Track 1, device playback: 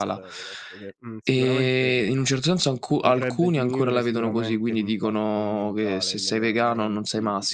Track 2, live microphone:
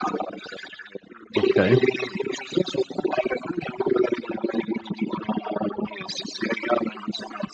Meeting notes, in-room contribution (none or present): present